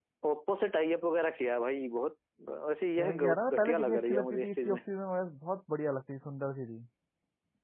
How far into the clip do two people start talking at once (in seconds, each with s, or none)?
3.0 s